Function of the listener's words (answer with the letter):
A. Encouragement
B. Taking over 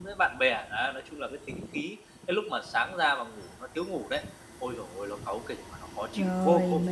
B